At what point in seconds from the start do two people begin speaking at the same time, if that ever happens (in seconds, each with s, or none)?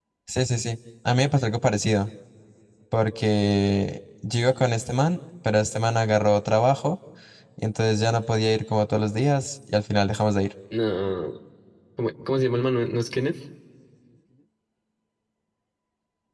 none